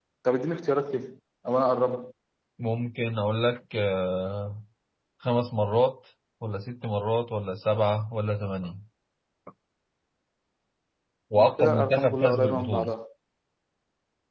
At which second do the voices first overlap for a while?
12 s

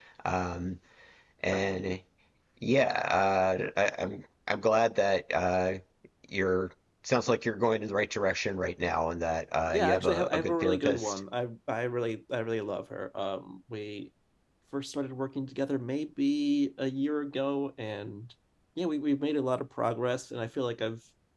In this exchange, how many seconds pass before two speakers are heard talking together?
10 s

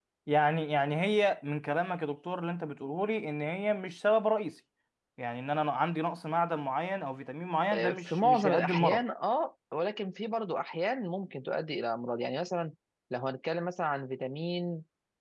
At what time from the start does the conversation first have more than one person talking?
8 s

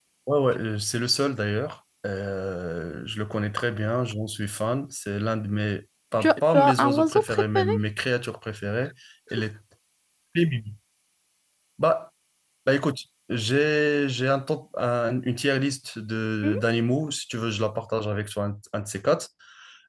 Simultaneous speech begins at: 6 s

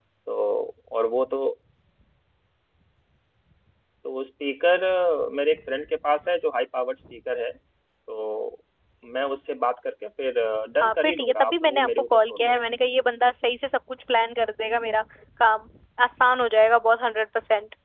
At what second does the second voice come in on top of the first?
11 s

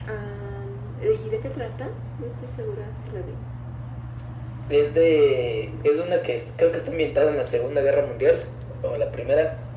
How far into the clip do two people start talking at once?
none

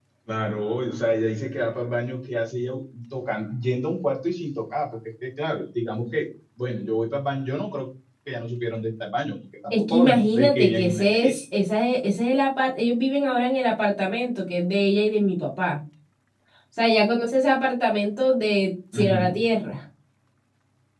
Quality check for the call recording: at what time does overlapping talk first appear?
10 s

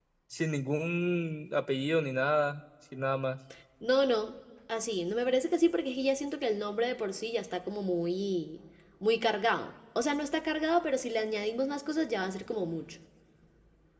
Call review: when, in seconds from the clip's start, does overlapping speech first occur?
none

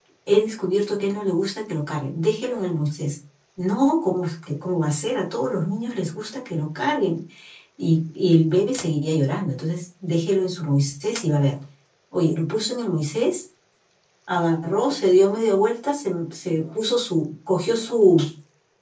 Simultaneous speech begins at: none

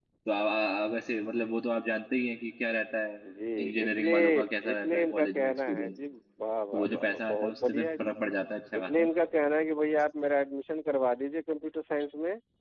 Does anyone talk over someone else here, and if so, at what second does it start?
4 s

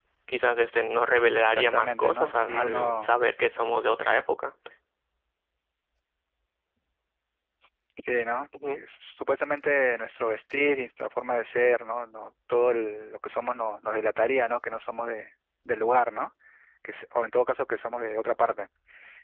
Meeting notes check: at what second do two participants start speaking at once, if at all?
2 s

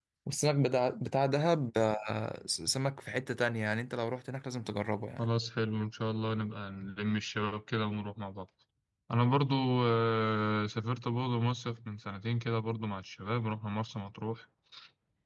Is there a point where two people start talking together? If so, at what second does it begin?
none

